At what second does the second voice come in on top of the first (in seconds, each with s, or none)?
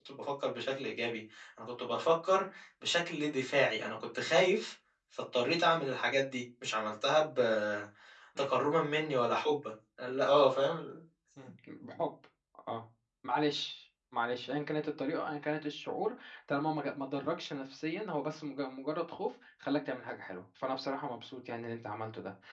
none